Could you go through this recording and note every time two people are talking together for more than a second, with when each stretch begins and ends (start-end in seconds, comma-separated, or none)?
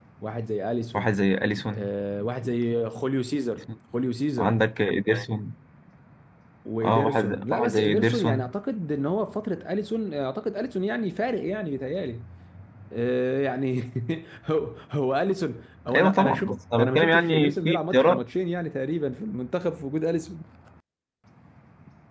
6.8-8.6, 15.9-18.2